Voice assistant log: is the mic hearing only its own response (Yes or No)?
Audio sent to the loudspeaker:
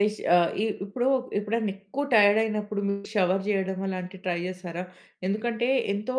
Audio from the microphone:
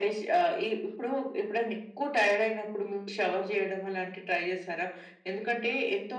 Yes